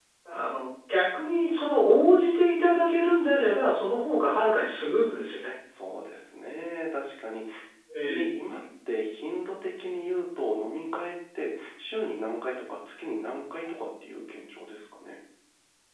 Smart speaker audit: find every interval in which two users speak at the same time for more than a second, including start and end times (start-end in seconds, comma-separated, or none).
none